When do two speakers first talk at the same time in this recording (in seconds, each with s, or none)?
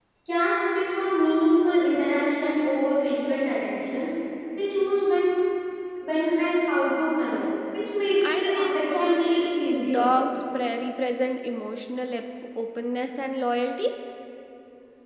8.2 s